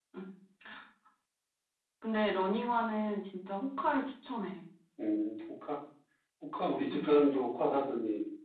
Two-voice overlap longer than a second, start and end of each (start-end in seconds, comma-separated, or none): none